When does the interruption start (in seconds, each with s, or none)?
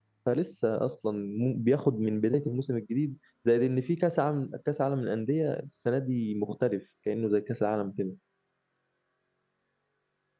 none